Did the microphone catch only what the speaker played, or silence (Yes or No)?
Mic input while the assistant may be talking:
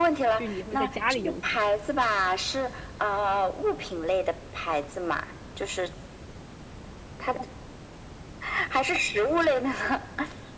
No